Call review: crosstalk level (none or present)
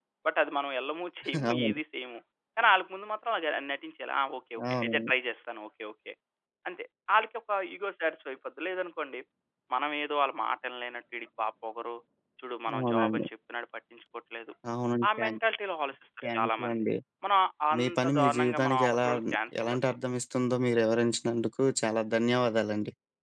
present